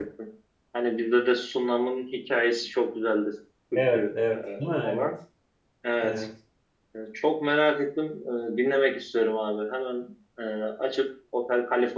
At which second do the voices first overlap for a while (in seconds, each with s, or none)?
3.7 s